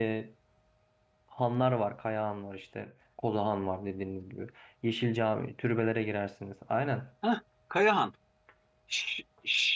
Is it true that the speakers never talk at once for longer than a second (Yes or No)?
Yes